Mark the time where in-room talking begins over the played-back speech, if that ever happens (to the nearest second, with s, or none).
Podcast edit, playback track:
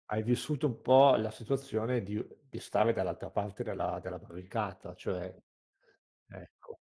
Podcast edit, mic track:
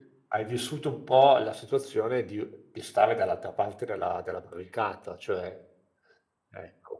none